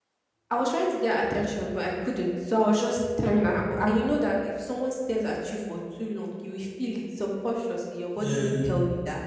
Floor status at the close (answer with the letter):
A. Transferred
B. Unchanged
B